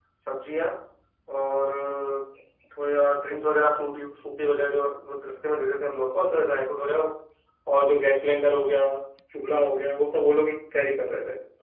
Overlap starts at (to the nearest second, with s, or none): none